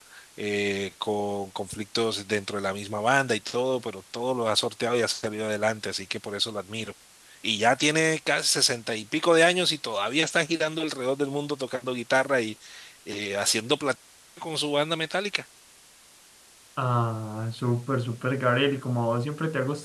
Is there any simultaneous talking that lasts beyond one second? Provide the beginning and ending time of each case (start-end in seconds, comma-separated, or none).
none